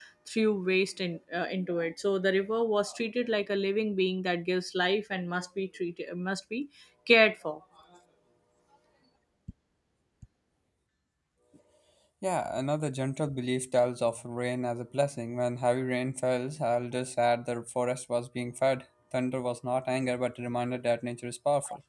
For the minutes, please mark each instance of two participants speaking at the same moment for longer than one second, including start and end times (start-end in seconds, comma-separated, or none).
none